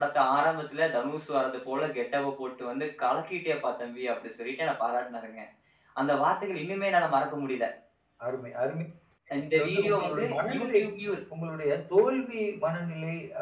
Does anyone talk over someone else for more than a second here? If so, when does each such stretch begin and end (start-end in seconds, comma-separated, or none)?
9.4-10.8